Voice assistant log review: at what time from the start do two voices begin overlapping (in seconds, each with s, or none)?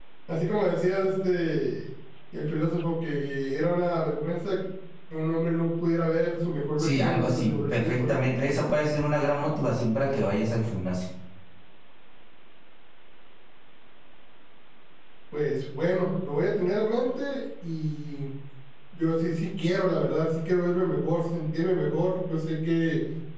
6.8 s